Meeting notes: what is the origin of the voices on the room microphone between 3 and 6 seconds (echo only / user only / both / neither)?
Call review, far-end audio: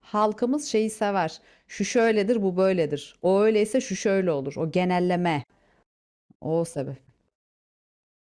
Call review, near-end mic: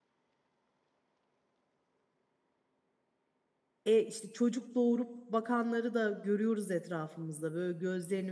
user only